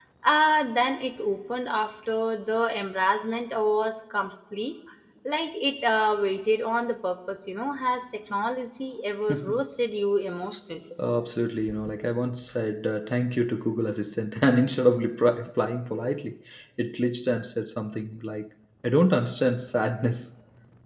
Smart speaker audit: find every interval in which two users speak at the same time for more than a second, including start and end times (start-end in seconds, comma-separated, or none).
none